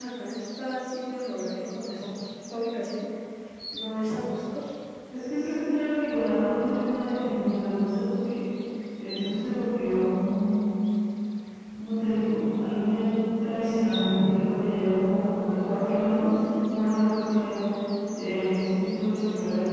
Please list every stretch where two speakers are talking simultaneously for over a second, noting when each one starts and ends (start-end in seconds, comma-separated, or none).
none